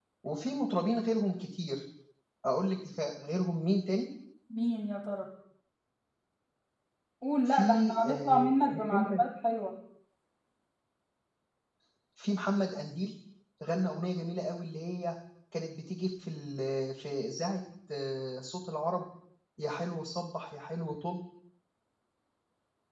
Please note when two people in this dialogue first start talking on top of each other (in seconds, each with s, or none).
7.4 s